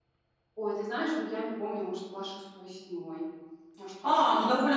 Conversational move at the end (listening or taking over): taking over